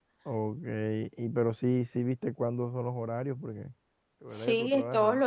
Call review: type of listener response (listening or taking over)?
taking over